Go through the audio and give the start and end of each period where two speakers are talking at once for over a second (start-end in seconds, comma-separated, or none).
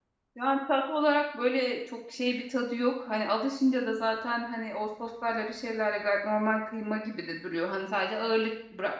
none